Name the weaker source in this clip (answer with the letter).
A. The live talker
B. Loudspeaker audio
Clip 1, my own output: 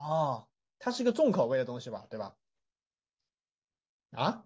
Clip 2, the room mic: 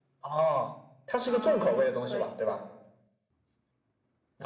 A